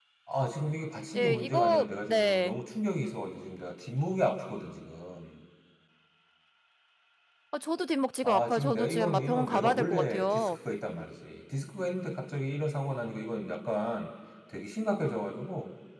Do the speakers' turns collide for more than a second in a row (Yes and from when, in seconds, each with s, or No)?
Yes, from 1.2 s